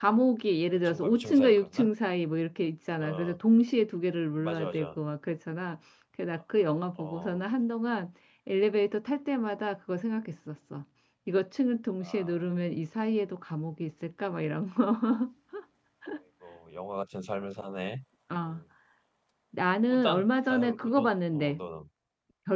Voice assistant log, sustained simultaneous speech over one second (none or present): present